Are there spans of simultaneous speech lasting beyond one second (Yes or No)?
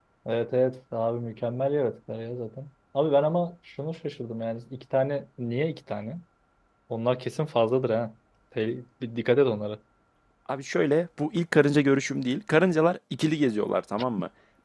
No